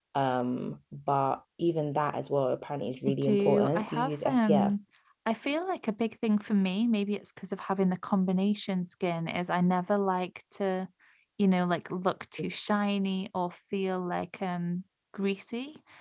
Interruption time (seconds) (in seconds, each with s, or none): 3.0 s